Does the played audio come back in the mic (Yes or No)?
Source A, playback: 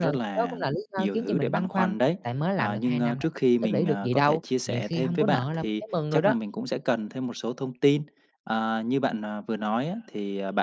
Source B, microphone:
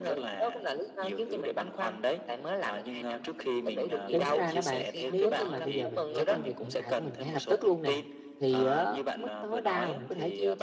Yes